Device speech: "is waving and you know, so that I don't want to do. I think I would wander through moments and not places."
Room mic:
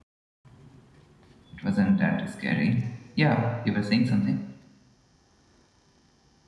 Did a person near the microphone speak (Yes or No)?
Yes